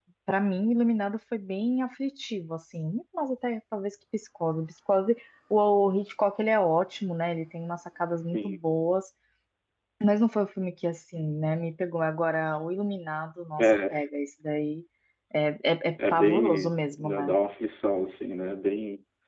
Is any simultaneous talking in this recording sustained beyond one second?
Yes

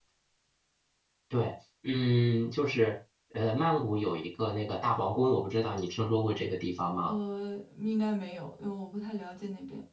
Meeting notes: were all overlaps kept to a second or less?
Yes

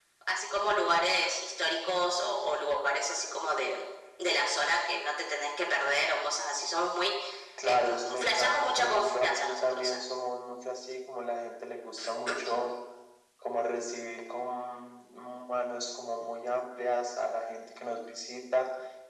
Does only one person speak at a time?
No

